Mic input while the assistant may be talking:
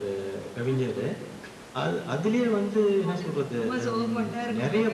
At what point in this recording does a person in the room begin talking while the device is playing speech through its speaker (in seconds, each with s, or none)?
none